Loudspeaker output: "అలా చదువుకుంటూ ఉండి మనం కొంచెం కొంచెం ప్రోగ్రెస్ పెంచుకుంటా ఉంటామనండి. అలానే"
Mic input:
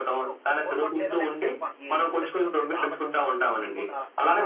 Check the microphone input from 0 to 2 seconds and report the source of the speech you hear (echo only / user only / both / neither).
both